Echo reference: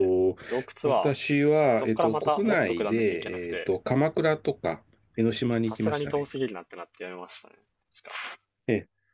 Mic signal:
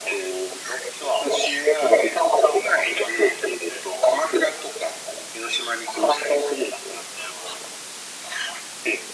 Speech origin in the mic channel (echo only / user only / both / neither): echo only